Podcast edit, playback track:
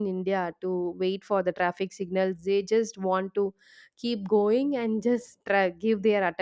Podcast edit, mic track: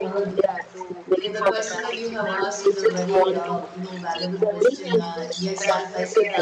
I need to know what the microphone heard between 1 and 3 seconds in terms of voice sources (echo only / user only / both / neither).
both